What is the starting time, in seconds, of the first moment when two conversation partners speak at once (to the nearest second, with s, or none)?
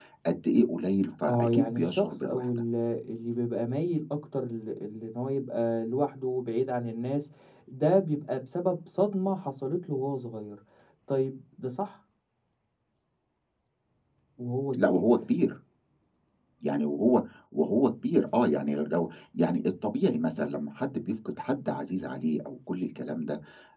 1 s